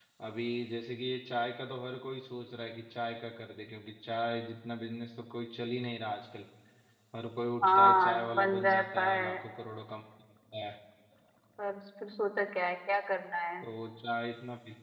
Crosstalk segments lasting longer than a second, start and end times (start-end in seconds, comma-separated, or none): 7.6-9.4